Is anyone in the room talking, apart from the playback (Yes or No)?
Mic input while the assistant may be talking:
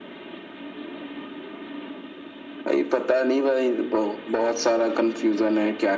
No